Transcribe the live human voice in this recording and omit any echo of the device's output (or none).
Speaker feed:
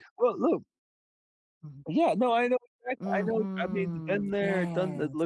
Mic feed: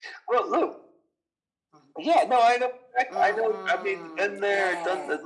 none